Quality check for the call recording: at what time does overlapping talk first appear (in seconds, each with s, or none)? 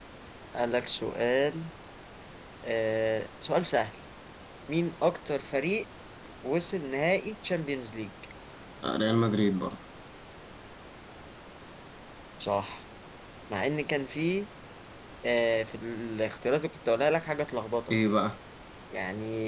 none